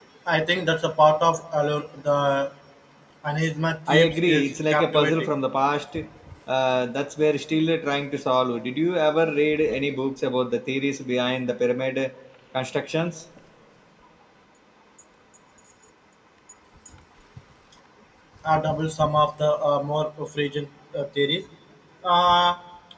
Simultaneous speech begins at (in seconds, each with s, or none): 3.9 s